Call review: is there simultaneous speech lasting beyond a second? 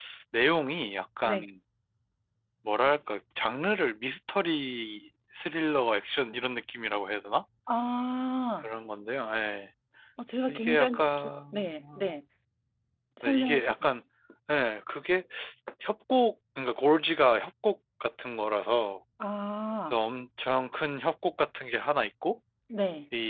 Yes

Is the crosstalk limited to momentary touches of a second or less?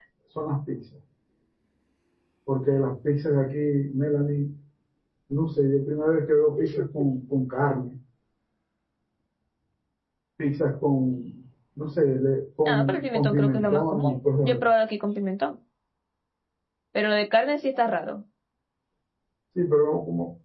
No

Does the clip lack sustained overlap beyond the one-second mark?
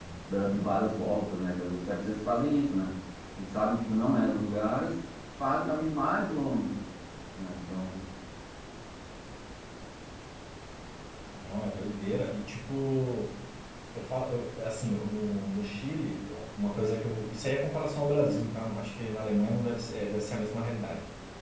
Yes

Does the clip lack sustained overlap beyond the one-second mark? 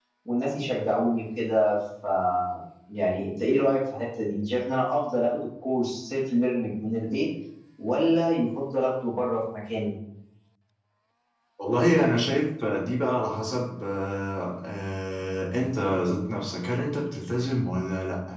Yes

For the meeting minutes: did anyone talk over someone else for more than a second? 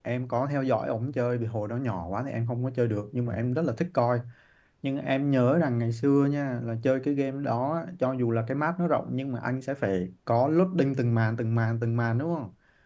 No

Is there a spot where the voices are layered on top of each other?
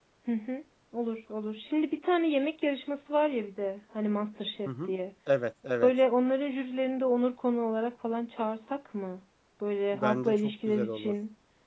Yes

